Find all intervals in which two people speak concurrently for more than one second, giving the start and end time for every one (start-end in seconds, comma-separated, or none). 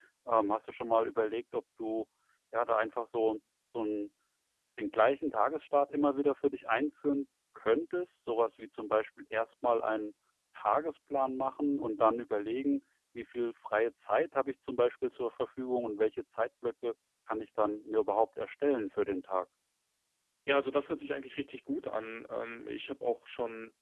none